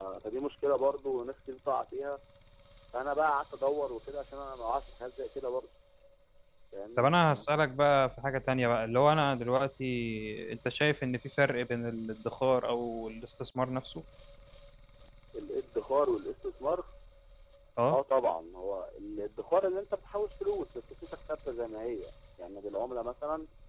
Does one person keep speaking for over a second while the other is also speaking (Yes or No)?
No